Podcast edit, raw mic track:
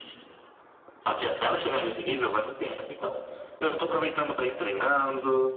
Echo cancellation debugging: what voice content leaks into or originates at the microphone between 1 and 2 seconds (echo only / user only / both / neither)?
echo only